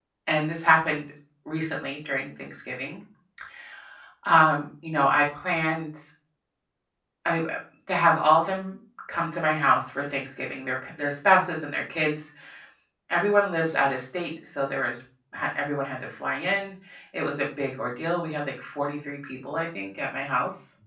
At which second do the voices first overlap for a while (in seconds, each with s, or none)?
none